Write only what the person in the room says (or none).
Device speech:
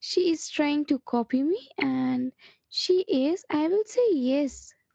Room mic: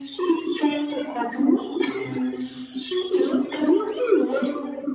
none